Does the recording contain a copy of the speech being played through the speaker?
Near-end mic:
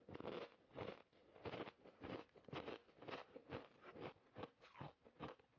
No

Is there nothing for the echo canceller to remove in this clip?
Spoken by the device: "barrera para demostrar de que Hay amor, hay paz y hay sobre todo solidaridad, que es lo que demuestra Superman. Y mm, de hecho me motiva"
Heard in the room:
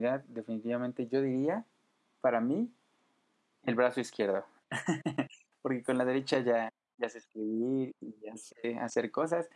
Yes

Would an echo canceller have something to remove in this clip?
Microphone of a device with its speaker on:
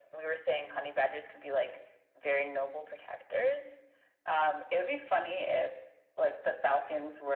Yes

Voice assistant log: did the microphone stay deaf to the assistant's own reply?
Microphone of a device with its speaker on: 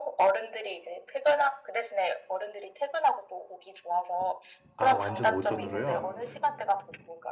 No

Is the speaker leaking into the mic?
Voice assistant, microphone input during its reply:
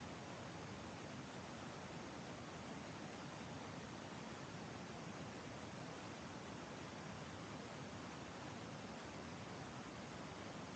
No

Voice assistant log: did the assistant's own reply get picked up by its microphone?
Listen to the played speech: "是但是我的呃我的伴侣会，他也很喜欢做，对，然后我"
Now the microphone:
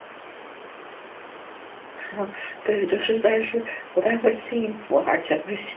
No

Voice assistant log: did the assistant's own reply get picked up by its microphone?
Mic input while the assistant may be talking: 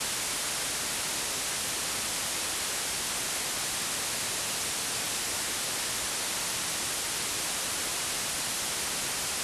No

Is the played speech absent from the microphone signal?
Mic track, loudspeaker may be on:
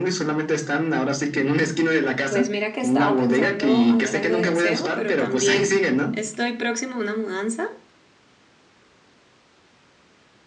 No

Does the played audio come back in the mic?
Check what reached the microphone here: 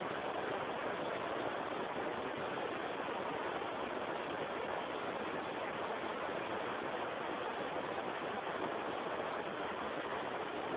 No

